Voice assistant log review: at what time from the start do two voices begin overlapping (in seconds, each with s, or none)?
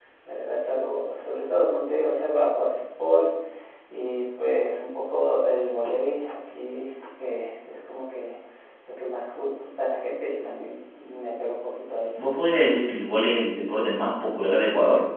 none